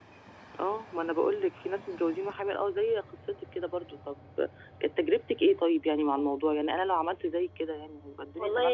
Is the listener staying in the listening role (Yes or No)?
No